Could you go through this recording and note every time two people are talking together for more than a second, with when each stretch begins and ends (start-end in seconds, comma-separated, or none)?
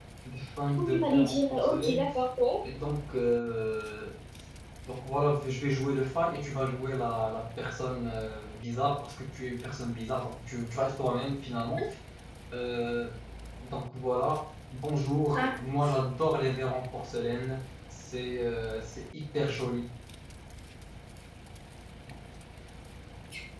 0.7-2.0